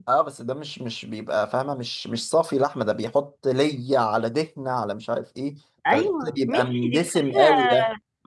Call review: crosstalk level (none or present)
present